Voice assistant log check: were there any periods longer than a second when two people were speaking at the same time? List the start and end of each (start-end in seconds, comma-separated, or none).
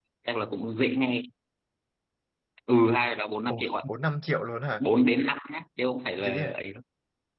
none